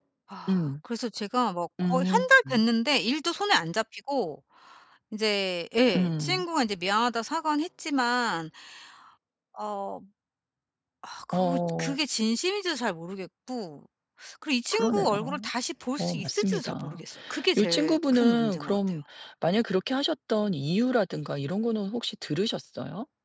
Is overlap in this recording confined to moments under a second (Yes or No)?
No